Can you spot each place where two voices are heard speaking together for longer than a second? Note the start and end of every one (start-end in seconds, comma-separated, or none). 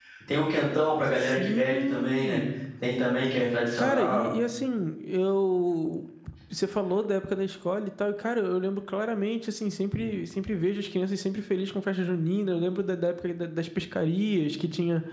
1.2-2.4